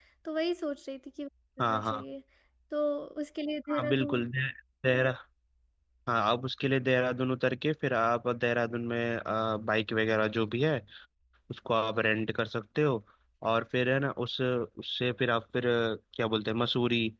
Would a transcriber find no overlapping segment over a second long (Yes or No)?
Yes